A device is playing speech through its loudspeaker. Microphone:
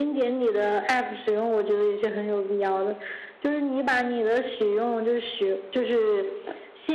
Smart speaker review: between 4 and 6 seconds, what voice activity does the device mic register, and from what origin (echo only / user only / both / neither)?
echo only